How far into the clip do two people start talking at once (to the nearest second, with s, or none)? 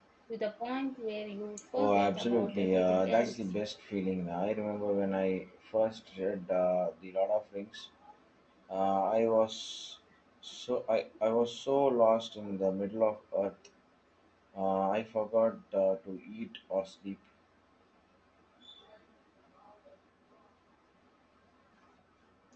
2 s